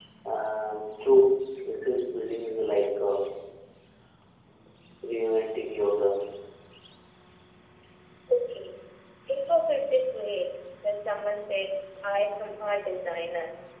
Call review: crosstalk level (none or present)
none